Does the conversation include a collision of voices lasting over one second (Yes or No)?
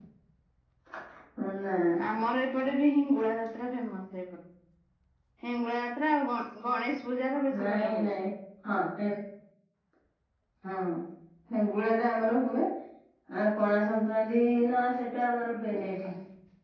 No